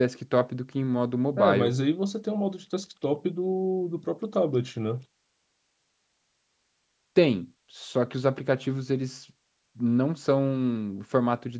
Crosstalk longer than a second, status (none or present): none